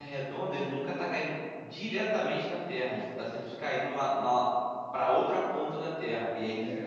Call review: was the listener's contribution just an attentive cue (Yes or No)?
No